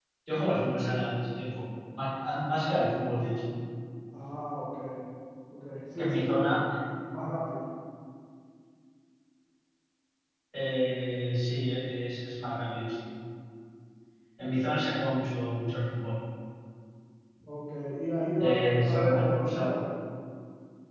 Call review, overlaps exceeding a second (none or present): present